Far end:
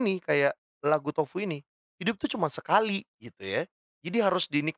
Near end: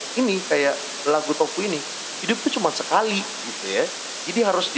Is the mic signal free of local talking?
Yes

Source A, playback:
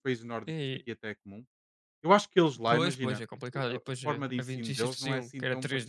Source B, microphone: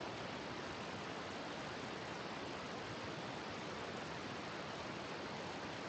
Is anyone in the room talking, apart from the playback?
No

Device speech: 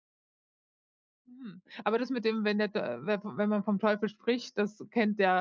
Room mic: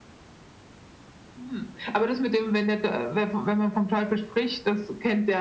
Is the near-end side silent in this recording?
Yes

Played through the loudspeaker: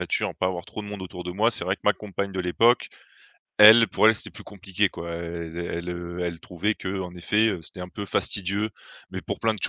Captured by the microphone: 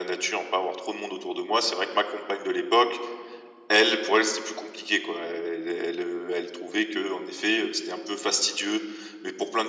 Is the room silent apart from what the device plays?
Yes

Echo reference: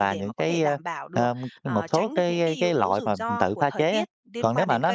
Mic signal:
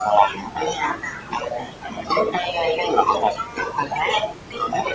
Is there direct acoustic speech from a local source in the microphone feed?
No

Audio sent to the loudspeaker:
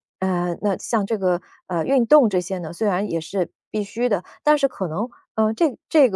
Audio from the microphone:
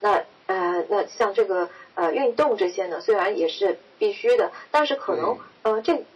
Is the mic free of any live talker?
No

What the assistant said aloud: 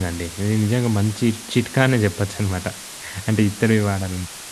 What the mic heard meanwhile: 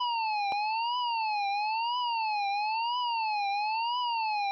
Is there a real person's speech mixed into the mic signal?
No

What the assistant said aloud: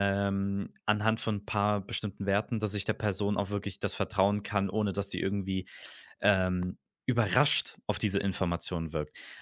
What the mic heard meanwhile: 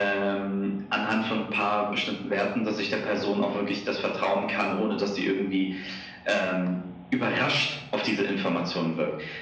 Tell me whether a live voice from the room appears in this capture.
No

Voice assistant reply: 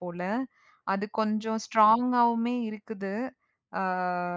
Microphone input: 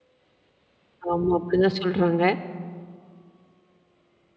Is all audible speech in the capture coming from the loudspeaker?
No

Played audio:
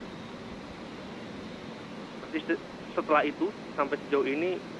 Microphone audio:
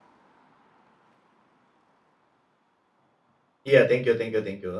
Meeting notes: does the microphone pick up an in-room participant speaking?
Yes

